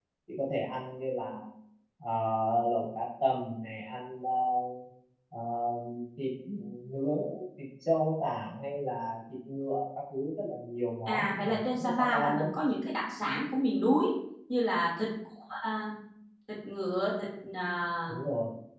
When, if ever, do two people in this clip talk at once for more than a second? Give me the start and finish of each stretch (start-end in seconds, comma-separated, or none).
11.1-12.5